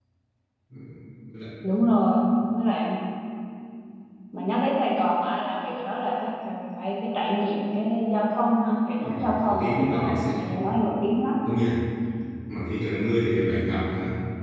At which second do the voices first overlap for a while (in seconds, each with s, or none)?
9.0 s